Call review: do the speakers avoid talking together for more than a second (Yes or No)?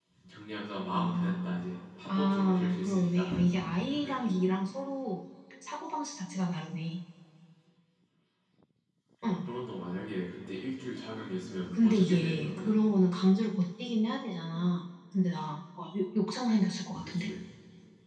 No